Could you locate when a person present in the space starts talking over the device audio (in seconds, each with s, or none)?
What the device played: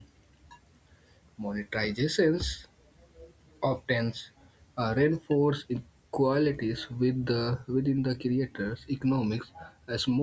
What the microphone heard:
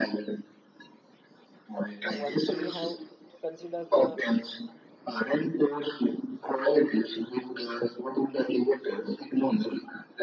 2.0 s